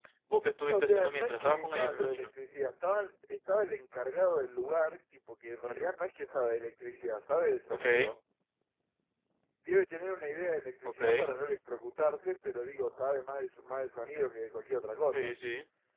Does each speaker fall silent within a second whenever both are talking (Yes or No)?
No